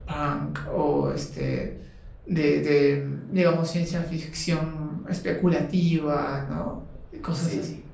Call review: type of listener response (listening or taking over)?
taking over